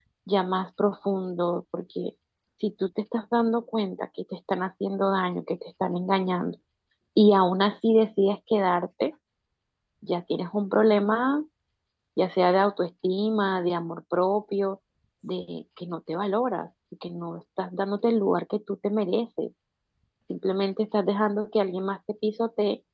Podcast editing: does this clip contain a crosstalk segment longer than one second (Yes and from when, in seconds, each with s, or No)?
No